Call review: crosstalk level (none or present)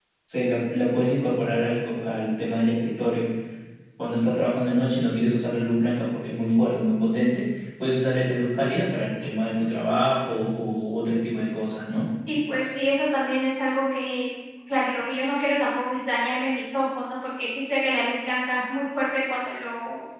none